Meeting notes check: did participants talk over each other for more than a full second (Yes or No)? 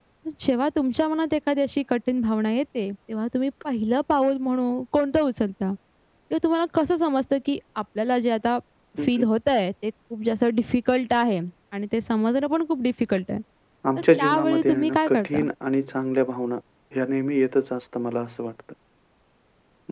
Yes